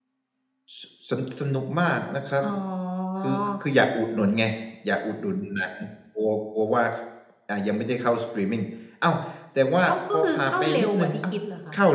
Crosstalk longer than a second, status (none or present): present